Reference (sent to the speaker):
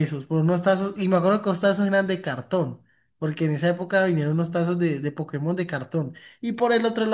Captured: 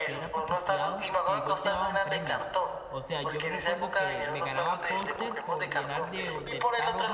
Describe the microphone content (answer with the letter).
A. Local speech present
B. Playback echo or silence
A